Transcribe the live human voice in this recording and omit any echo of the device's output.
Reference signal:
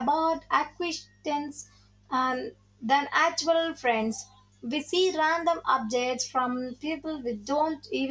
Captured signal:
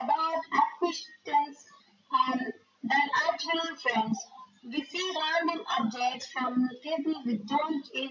none

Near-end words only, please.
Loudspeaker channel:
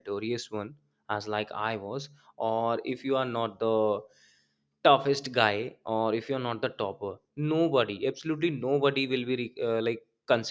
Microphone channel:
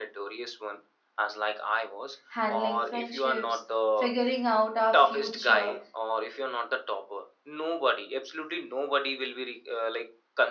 handling friendships, figuring out our future.

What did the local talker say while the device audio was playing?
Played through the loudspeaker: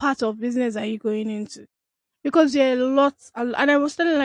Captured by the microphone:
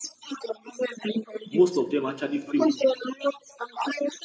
most of them actually fail.

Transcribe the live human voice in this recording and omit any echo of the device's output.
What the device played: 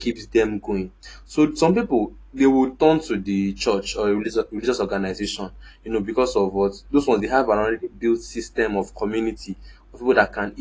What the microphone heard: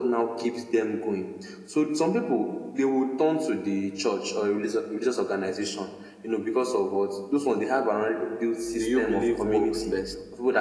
Do you believe works best?

